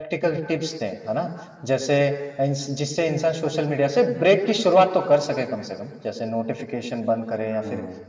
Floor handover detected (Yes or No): No